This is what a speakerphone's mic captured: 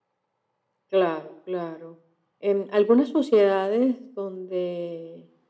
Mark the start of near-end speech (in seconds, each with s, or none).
none